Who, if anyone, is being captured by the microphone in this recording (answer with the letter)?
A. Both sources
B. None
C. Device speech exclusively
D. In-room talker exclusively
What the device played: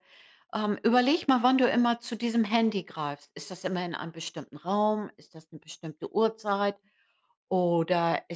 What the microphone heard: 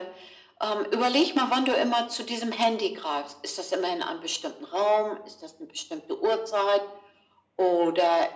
C